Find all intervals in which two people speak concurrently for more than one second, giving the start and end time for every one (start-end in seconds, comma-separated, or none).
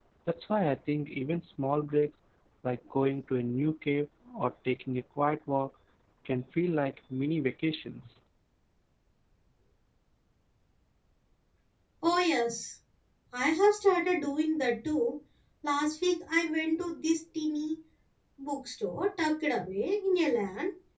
none